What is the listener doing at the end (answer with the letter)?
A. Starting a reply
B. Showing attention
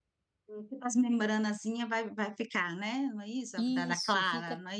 A